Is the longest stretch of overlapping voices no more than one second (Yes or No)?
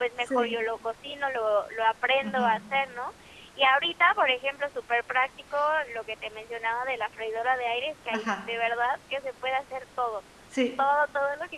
Yes